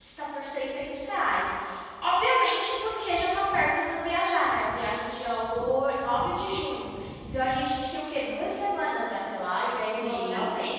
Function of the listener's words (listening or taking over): taking over